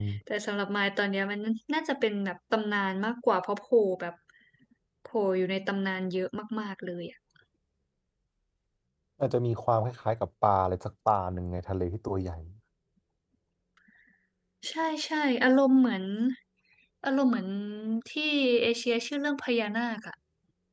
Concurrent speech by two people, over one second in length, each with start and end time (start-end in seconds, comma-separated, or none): none